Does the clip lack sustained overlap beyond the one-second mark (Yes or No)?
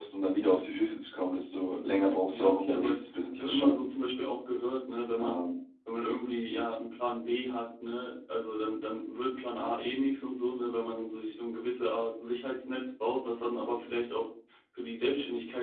No